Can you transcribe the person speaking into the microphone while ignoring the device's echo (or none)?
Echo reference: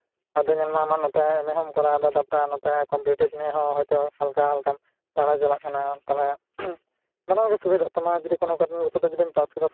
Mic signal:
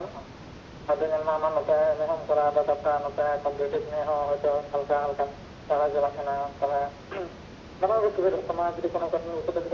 none